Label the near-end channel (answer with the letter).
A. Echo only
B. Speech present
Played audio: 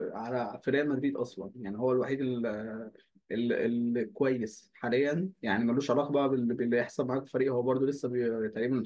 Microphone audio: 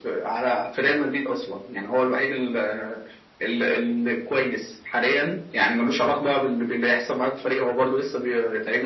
A